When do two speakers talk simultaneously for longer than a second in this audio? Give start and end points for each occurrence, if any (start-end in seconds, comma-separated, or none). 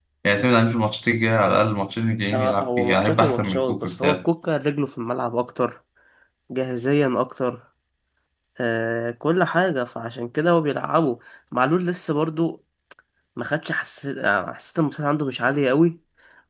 2.3-4.2